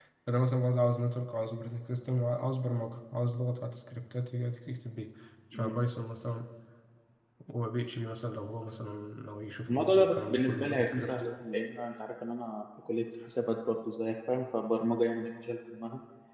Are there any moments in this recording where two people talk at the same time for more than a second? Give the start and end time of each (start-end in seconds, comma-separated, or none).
9.7-11.1